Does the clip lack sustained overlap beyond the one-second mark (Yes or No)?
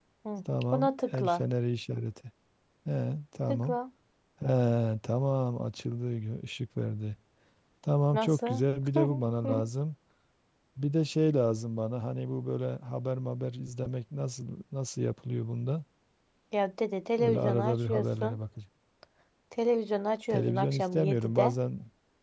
No